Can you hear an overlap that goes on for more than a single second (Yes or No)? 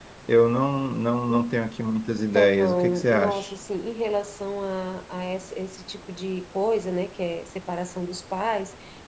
Yes